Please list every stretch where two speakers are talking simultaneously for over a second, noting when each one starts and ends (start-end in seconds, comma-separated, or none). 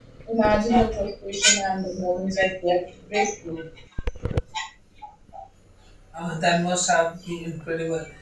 none